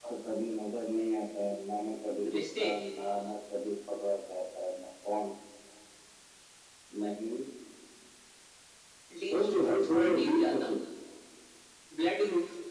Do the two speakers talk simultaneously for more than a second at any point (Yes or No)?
Yes